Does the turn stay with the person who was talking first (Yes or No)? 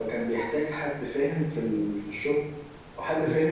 Yes